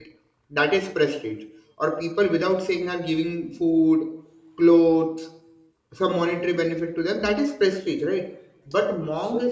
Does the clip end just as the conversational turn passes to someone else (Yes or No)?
No